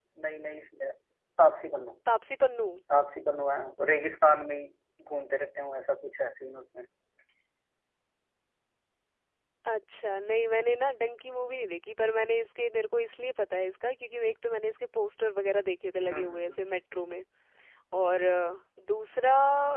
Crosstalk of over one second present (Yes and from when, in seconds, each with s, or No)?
No